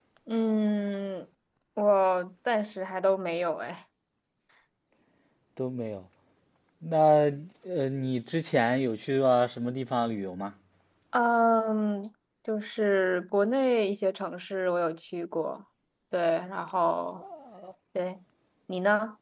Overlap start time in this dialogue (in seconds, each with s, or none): none